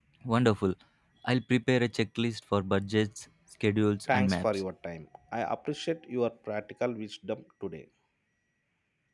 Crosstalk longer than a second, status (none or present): none